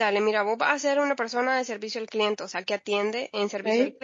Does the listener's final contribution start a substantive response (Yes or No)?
No